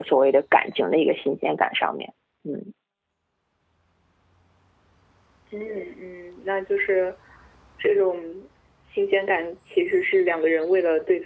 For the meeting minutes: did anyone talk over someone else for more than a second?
No

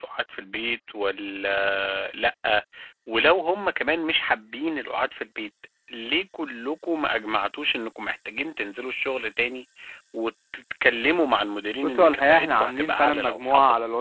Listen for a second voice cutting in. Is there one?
Yes, from 11.8 s

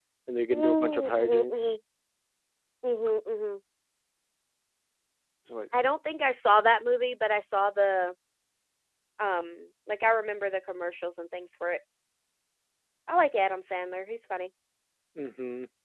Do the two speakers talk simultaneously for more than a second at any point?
Yes, from 0.5 s

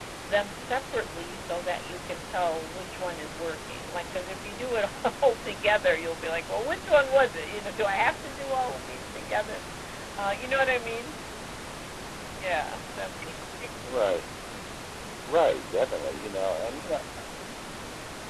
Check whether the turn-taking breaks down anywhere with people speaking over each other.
No

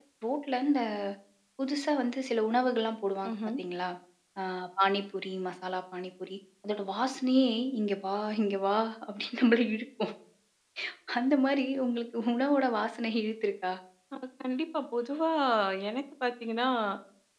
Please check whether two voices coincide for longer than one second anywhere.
No

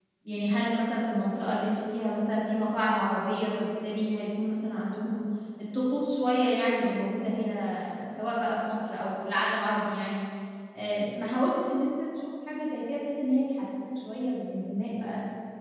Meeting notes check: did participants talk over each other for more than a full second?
No

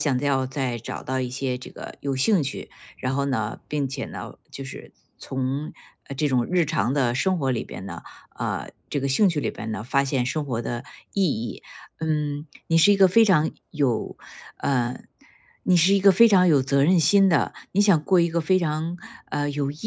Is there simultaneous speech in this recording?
No

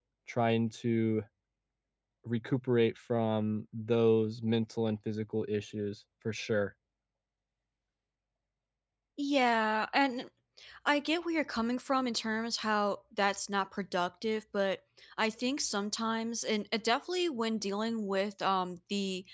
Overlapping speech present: No

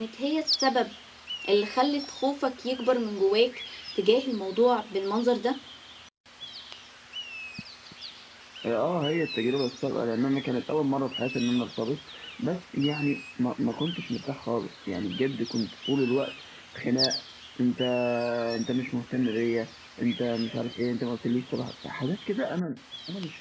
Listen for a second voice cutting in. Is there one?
No

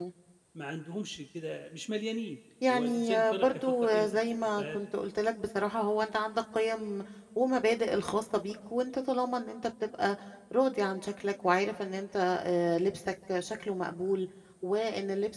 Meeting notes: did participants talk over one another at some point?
Yes, from 2.6 s

